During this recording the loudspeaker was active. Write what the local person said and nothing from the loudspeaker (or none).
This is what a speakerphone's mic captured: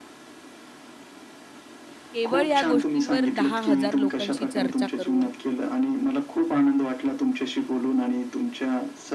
केवळ या गोष्टींवर 10,000 लोकांशी चर्चा करून,